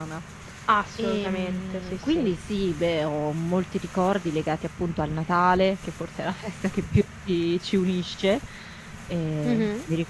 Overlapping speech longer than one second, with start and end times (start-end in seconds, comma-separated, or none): 1.0-2.3